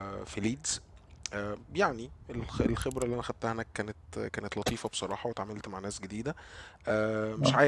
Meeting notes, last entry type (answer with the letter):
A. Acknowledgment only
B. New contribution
A